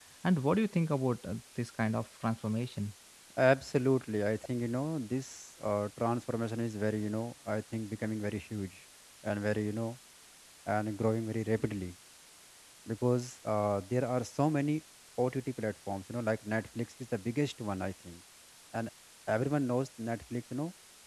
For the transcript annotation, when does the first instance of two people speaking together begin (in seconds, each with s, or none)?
none